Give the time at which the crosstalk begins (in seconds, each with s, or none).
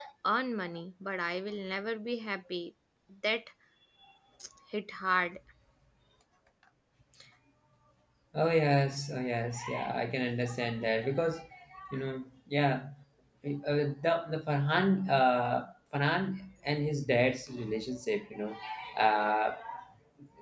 none